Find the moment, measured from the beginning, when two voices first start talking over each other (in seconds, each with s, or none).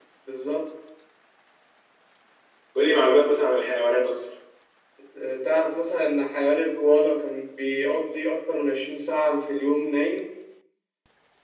none